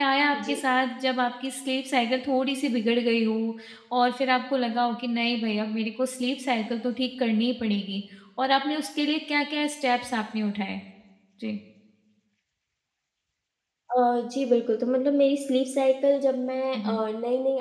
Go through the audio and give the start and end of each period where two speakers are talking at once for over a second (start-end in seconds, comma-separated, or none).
none